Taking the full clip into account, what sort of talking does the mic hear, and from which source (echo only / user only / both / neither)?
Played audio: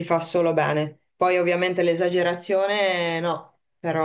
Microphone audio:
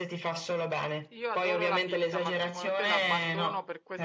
both